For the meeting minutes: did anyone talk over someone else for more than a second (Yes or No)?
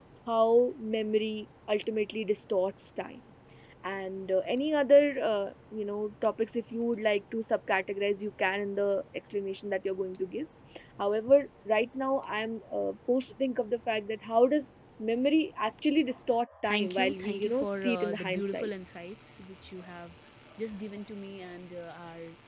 Yes